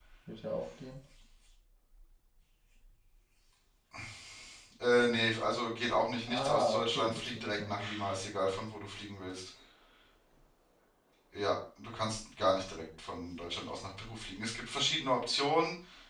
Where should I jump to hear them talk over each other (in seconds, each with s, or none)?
6.2 s